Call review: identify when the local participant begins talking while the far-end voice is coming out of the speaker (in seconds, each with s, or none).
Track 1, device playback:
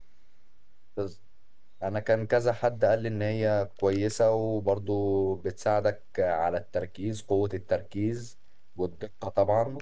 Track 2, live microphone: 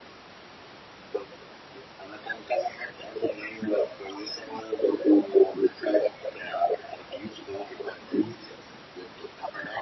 none